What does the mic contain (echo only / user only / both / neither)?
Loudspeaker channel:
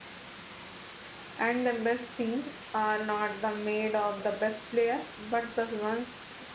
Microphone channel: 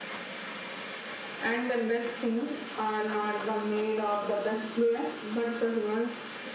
echo only